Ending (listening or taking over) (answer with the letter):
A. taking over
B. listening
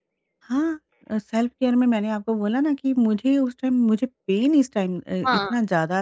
B